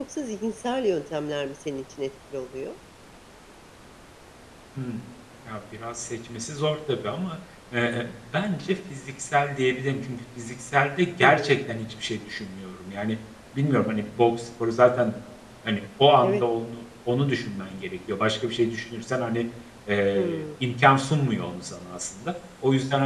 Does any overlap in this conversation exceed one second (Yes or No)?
No